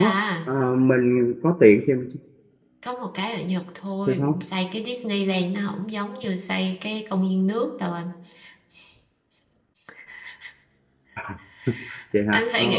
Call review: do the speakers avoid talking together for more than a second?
Yes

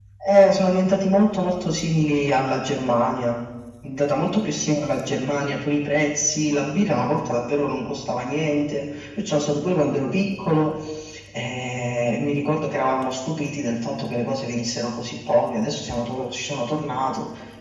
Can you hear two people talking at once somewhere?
No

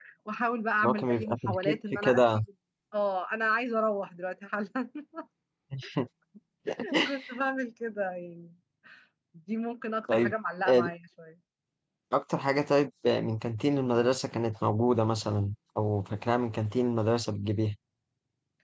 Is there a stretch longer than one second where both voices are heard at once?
Yes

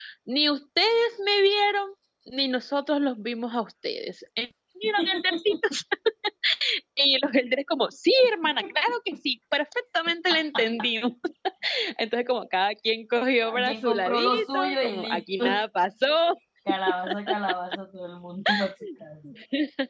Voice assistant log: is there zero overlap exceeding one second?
No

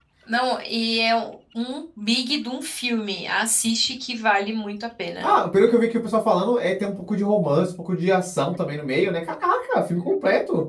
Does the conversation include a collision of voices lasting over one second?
No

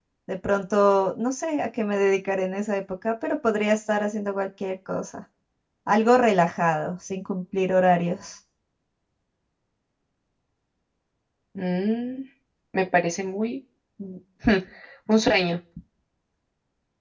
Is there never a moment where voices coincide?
Yes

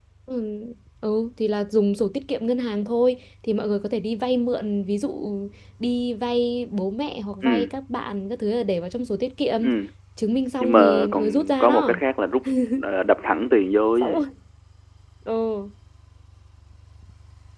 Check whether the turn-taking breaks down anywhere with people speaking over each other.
Yes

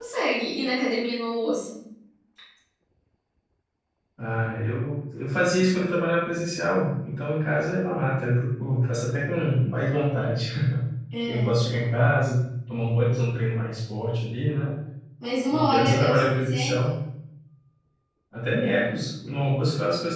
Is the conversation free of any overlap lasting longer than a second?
No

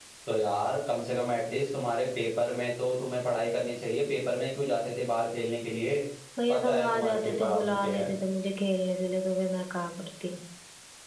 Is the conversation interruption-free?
No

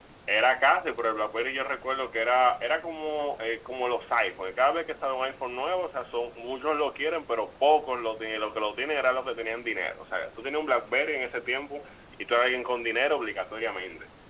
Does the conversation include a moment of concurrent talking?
No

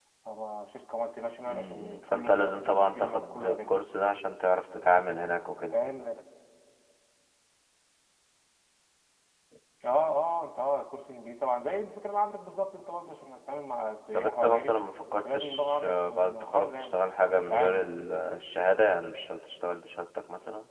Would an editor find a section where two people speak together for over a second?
Yes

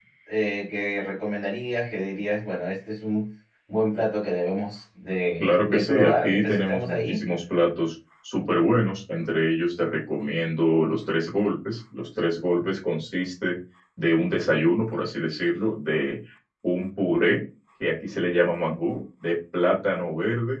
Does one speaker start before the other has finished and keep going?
Yes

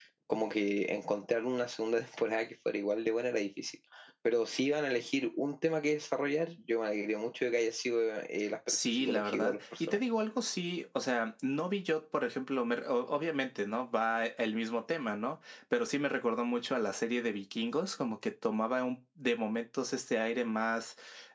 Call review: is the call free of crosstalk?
No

